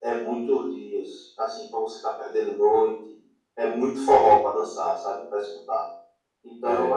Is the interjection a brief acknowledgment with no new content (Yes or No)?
Yes